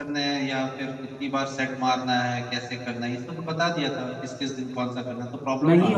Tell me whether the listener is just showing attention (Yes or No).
No